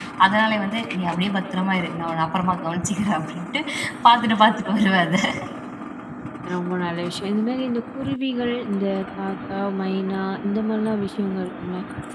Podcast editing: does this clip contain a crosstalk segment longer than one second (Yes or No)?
No